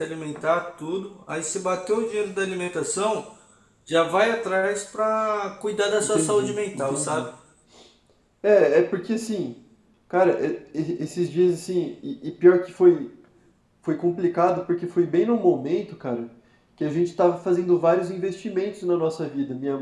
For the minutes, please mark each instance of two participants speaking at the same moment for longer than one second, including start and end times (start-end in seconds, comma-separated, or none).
6.0-7.3